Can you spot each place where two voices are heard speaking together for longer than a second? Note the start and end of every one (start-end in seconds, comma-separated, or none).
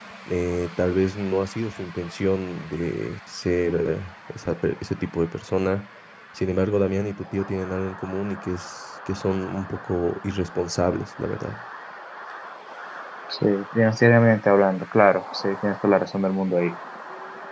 none